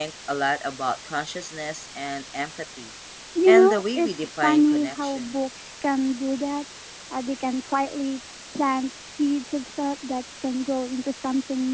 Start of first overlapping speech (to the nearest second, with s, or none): 3 s